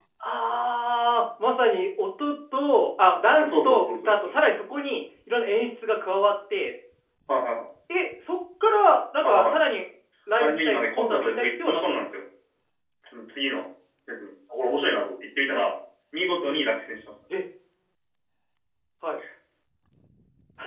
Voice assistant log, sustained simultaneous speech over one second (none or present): present